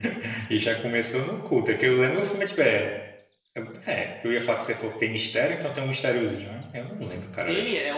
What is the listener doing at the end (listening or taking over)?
taking over